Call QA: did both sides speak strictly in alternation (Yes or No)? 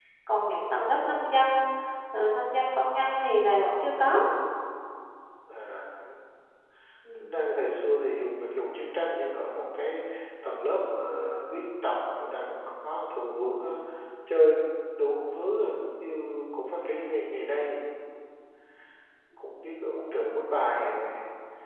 Yes